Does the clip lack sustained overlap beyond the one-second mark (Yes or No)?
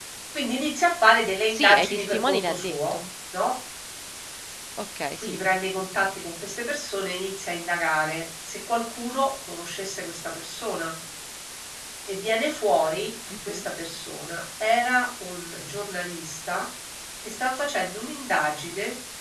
No